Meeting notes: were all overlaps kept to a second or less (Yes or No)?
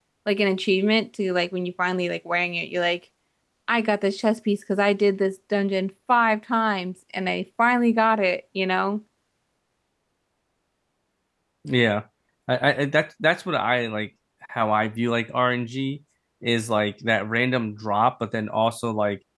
Yes